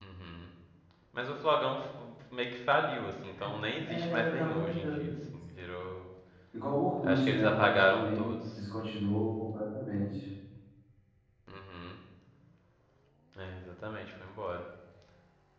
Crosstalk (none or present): present